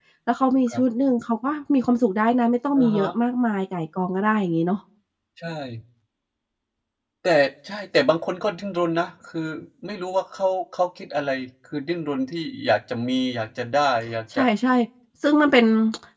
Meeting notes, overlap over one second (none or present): none